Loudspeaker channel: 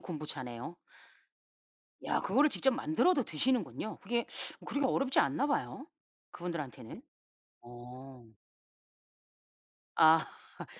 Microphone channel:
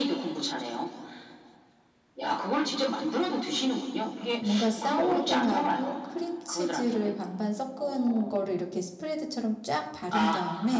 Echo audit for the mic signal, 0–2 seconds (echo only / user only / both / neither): echo only